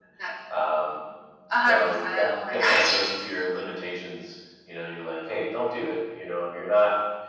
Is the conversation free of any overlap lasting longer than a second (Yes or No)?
No